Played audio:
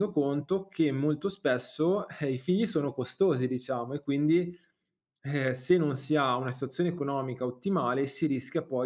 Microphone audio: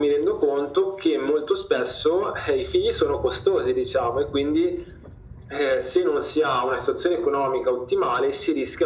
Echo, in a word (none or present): present